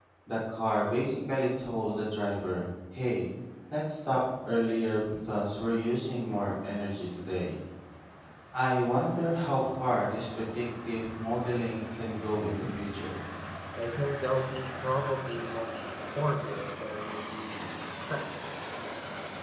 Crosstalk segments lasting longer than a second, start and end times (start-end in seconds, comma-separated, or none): none